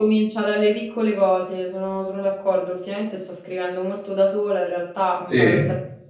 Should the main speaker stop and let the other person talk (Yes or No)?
No